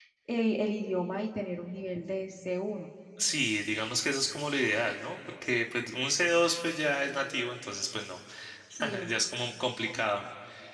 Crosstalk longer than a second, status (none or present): none